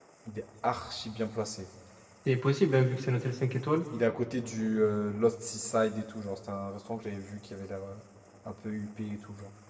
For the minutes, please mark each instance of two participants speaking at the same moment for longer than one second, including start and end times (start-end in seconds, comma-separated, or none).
none